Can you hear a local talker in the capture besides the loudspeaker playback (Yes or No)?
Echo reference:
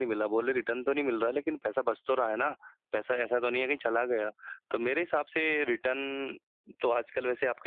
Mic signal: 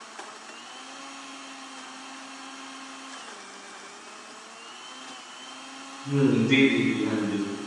Yes